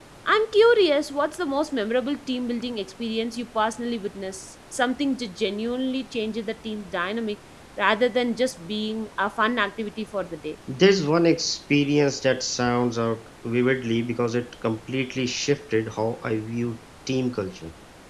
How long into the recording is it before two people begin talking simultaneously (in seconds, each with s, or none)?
none